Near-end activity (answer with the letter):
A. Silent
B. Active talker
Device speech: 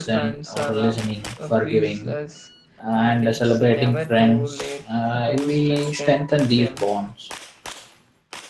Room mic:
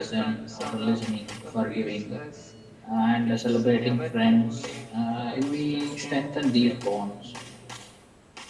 A